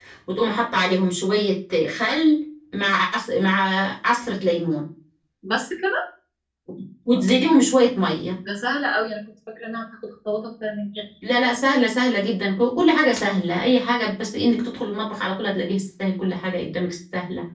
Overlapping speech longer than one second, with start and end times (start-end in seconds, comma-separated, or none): none